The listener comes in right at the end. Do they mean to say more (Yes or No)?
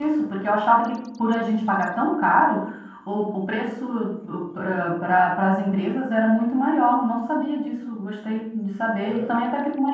No